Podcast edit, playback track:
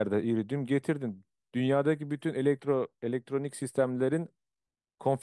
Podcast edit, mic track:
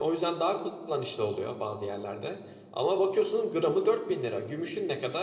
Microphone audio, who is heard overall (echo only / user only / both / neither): user only